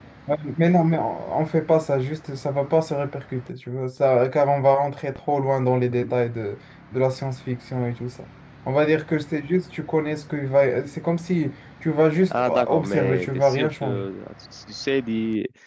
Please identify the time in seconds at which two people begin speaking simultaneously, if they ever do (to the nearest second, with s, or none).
12 s